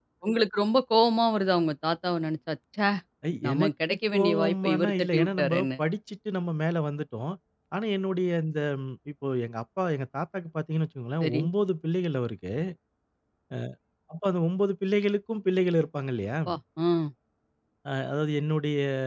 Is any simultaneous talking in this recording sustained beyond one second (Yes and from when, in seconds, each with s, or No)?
Yes, from 3.4 s